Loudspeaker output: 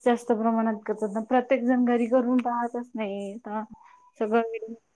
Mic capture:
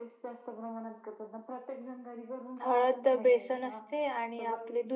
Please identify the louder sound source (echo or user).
user